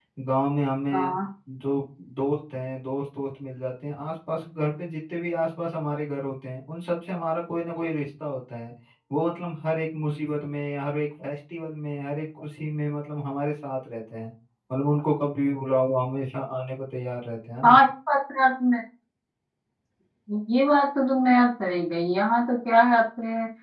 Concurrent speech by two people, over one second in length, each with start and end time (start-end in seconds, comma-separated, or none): none